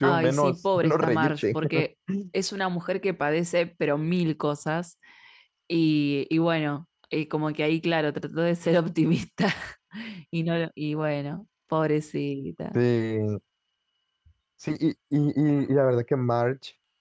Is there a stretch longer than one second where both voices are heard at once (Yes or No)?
Yes